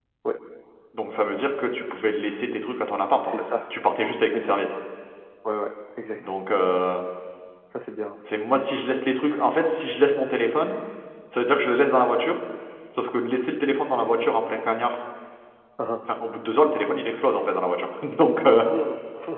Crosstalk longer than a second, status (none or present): none